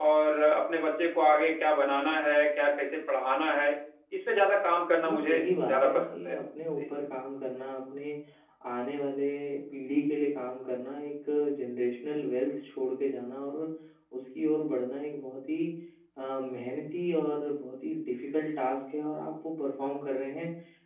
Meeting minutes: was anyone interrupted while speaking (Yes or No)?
Yes